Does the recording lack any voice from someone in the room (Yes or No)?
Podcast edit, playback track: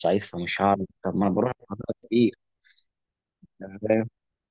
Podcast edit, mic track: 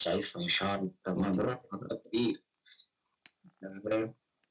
No